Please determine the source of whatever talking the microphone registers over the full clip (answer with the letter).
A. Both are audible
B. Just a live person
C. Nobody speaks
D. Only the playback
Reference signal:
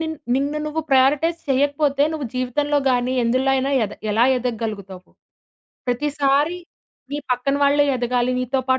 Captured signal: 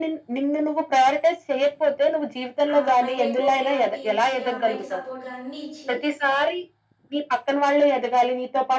A